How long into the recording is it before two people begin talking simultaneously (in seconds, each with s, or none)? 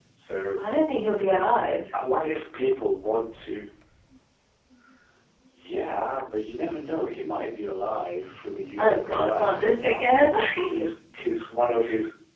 8.8 s